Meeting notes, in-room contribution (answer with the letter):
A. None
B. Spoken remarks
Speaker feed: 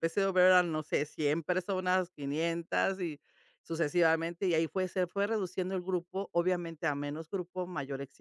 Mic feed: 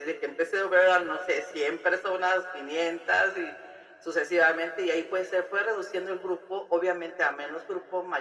A